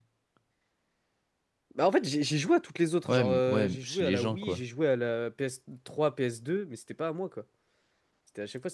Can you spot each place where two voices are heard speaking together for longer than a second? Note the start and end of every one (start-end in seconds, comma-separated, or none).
3.1-4.6